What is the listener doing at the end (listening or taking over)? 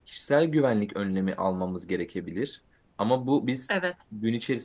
listening